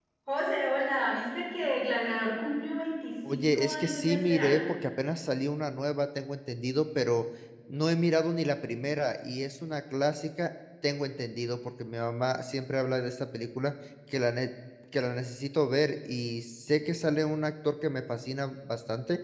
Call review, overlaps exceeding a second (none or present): present